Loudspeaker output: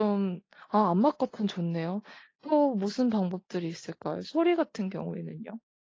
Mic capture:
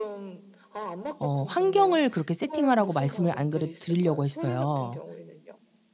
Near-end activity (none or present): present